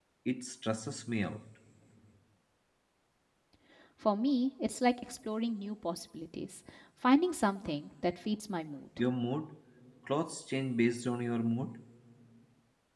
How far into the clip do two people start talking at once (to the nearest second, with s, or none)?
none